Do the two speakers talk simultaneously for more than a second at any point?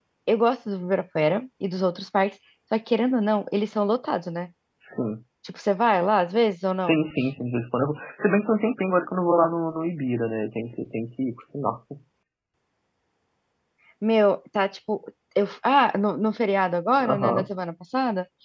No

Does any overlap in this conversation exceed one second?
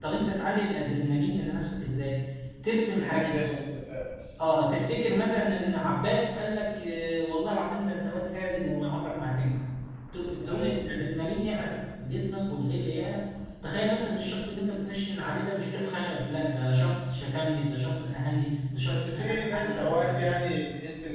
Yes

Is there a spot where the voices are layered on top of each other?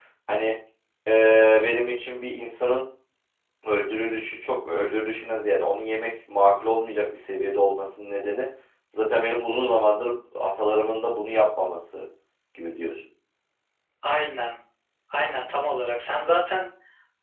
No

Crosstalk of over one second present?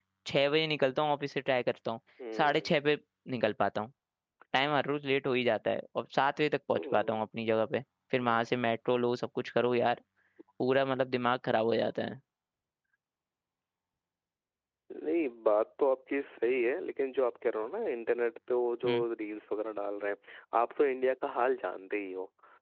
No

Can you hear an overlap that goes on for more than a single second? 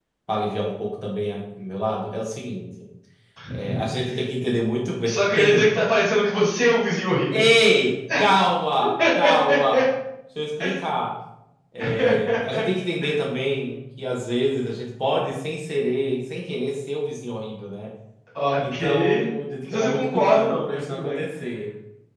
Yes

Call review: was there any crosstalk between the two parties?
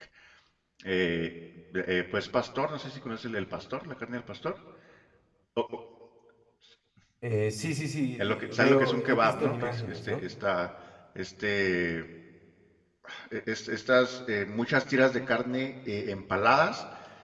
Yes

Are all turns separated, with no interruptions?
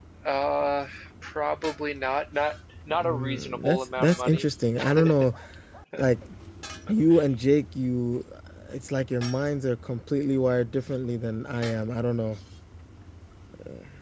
No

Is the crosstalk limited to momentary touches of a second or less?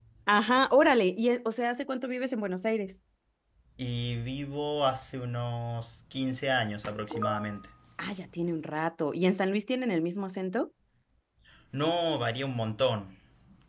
Yes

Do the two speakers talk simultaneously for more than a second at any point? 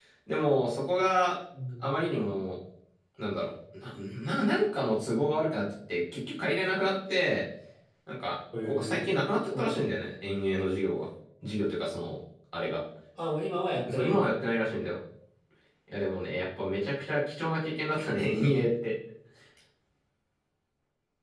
No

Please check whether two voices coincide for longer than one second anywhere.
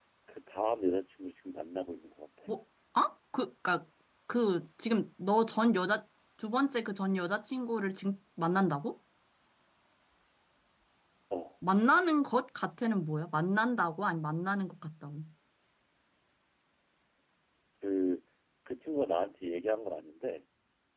No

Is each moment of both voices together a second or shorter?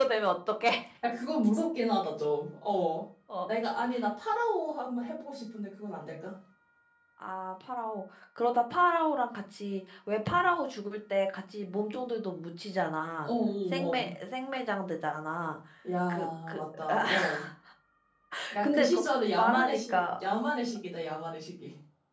No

